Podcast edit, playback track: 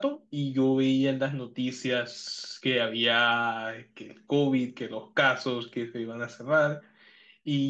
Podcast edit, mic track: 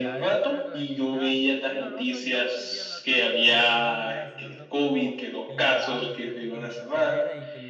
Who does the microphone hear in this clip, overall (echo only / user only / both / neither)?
both